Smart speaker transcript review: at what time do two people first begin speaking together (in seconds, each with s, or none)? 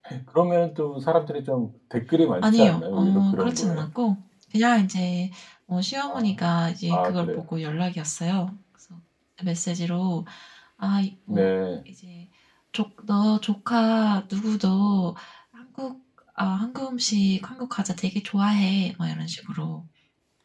2.4 s